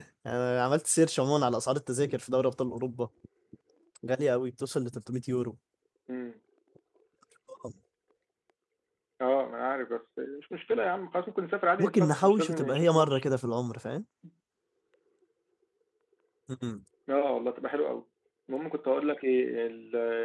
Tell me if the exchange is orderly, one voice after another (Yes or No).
No